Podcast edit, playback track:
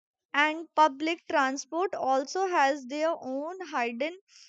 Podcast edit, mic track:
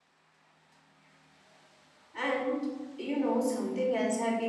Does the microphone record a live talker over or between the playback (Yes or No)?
Yes